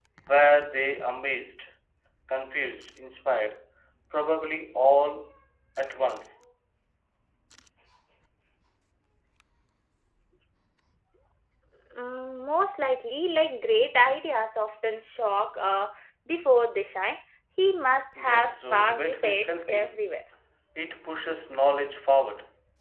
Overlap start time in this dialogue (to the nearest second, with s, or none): 18 s